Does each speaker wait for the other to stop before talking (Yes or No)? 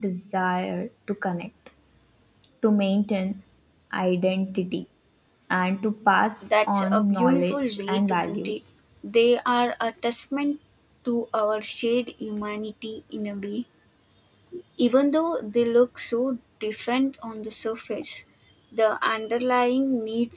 No